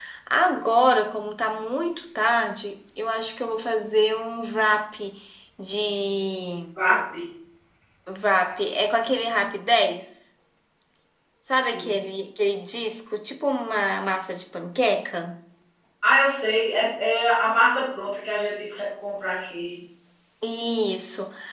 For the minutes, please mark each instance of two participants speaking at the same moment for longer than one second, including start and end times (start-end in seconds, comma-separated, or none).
none